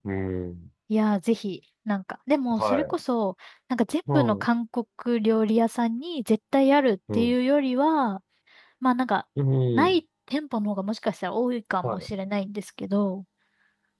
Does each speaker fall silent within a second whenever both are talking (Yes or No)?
Yes